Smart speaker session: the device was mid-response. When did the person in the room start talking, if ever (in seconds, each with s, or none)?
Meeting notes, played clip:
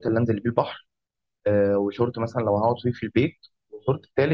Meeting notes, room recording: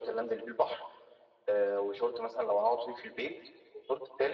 none